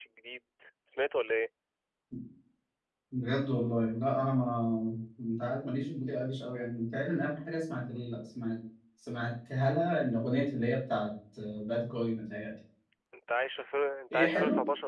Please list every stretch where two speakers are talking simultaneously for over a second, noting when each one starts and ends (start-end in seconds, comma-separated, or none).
none